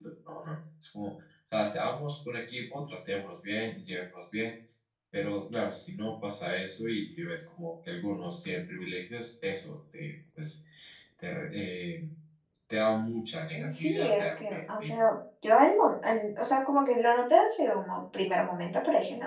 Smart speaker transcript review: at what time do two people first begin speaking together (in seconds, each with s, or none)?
13.5 s